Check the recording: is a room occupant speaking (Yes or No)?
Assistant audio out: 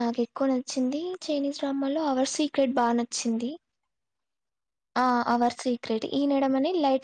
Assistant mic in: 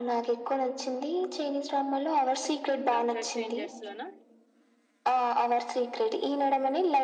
Yes